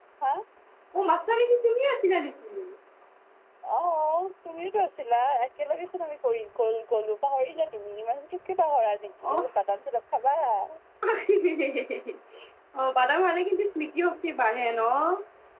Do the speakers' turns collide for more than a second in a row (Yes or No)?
No